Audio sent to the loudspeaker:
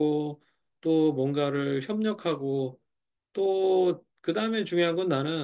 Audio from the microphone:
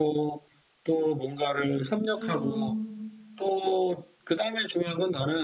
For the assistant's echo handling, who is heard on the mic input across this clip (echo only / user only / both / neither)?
both